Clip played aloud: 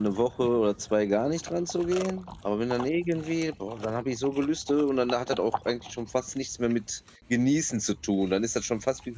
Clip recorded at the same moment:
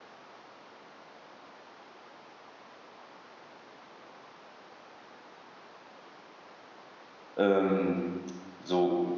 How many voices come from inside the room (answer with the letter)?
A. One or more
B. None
A